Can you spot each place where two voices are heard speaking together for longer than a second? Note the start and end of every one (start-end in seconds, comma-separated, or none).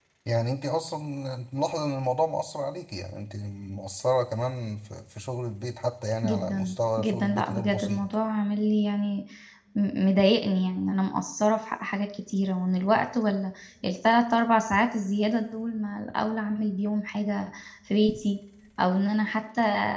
6.2-8.1